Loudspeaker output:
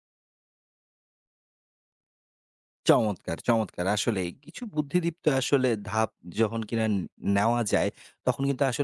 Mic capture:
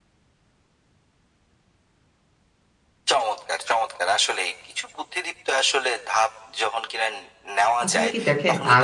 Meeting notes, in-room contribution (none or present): present